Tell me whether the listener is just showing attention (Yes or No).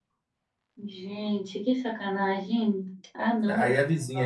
No